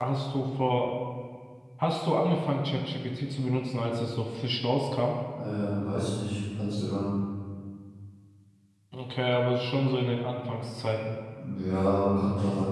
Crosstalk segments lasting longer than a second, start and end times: none

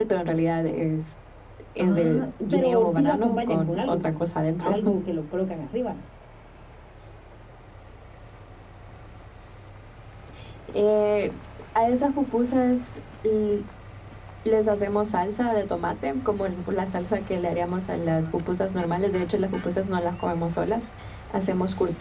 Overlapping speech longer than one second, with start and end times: 1.8-4.2

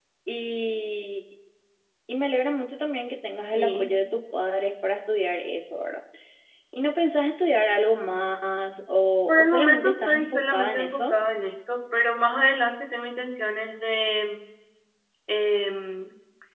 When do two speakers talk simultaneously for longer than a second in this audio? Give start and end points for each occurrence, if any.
9.3-11.1

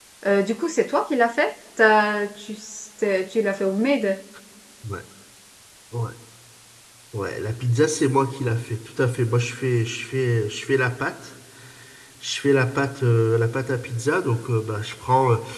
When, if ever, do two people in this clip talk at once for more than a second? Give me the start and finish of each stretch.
none

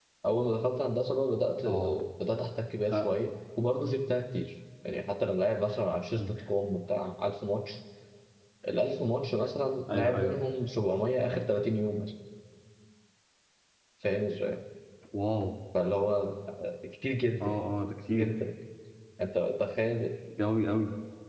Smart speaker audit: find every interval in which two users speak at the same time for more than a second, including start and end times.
none

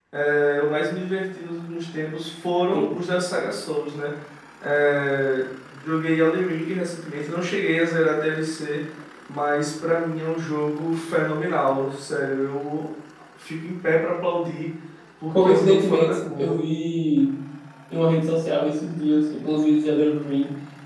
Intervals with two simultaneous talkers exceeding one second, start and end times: 15.3-16.6

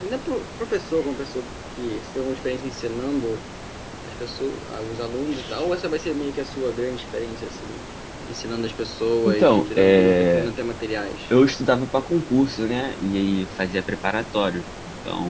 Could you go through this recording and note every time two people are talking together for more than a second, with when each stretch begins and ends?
9.2-10.5

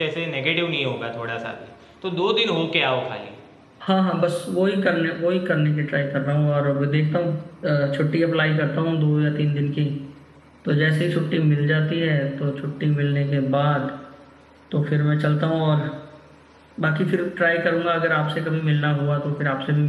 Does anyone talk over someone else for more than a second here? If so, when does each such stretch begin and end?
none

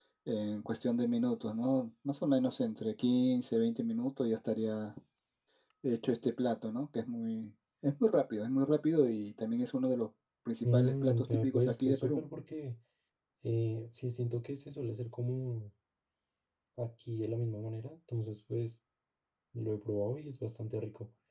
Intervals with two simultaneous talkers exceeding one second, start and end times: 10.7-12.2

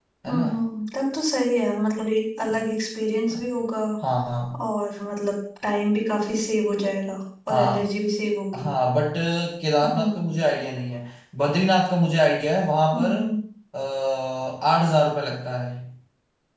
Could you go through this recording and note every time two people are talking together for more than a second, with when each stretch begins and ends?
none

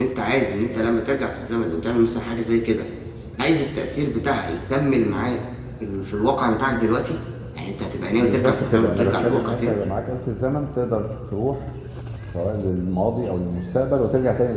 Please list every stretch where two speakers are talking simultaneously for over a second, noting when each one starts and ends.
8.2-9.8

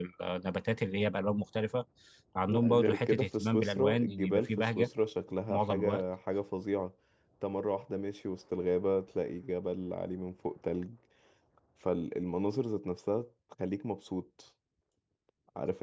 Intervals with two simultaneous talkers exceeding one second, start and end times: 2.5-4.9

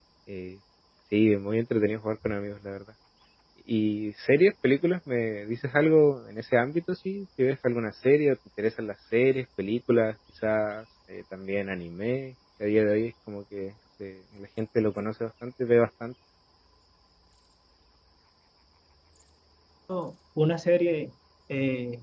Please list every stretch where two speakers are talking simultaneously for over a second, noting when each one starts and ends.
none

